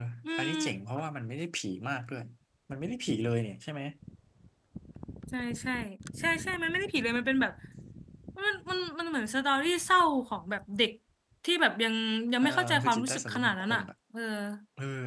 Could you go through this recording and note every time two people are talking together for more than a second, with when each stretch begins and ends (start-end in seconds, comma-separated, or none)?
12.4-13.8